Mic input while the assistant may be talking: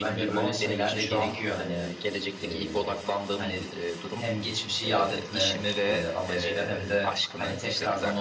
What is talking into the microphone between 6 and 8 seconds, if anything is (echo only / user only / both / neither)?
both